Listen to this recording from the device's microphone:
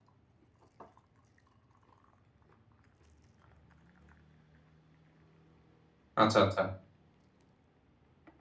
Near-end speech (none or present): present